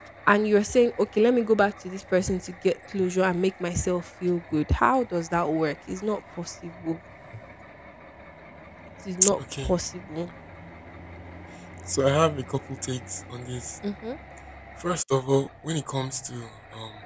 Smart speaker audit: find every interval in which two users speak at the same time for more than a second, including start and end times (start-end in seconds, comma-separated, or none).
none